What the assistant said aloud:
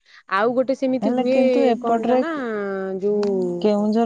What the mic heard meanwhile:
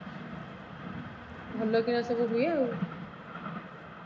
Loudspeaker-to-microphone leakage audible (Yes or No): No